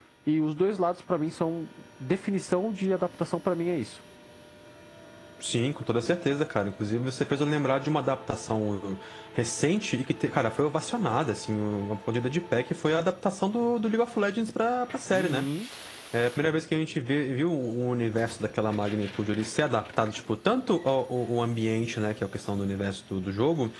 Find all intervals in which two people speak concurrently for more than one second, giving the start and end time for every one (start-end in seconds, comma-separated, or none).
none